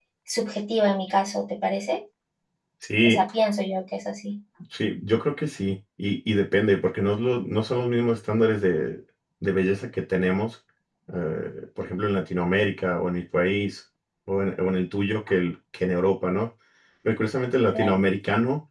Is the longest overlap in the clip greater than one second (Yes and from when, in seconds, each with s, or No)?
No